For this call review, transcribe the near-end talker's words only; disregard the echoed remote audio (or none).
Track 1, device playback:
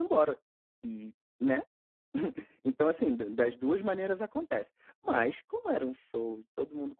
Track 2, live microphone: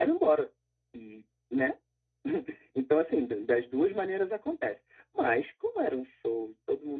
none